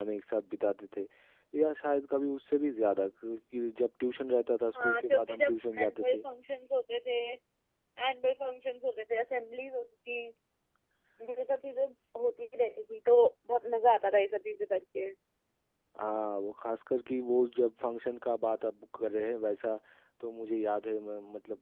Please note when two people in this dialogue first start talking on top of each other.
4.8 s

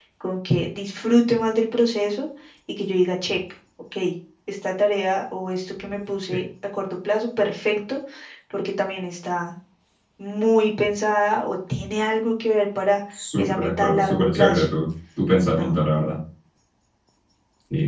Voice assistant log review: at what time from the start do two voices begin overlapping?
13.4 s

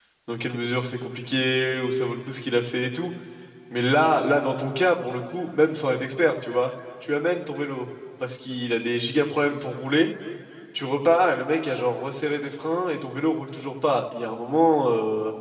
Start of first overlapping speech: none

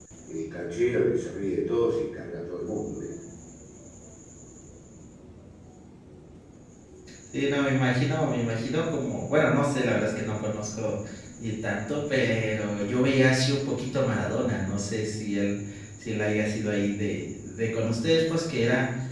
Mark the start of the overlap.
none

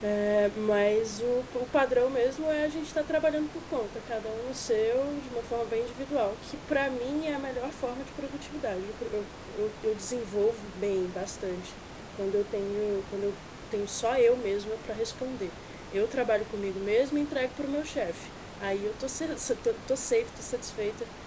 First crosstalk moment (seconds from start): none

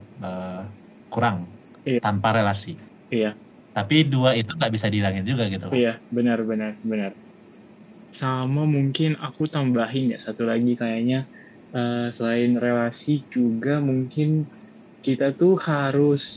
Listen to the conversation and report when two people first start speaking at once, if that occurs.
none

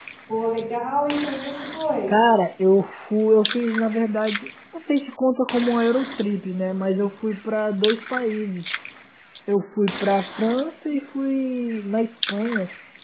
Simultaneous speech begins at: none

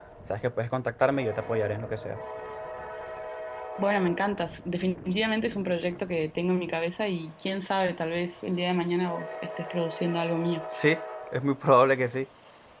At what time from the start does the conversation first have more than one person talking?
none

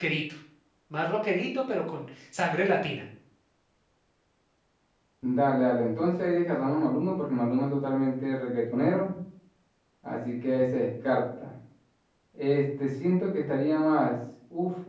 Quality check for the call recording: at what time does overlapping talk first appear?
none

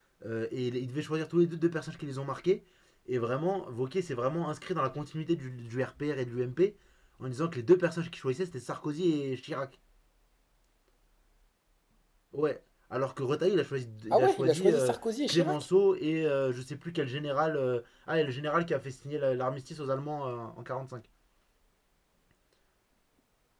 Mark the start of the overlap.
14.1 s

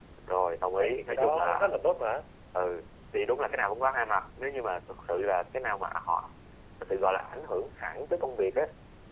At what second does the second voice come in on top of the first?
0.8 s

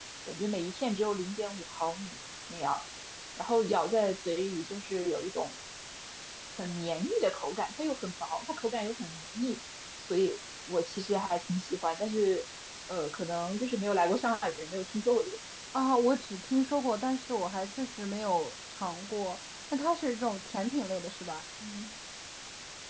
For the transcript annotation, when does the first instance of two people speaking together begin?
none

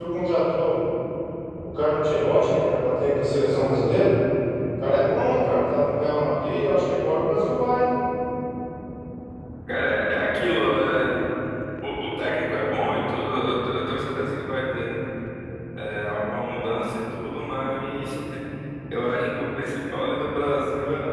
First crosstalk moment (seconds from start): none

